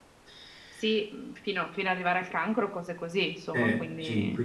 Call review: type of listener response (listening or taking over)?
taking over